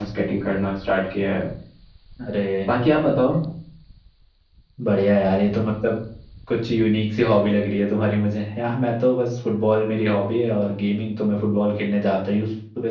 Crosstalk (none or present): none